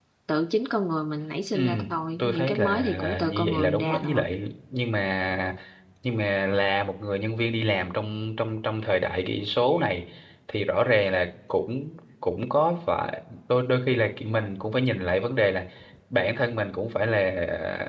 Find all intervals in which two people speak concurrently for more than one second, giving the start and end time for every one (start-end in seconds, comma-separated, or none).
2.2-4.2